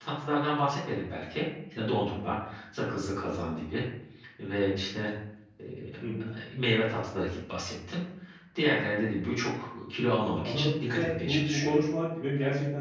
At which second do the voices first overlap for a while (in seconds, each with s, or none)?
10.4 s